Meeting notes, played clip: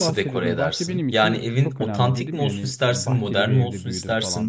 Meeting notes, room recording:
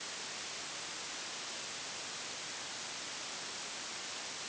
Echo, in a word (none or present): none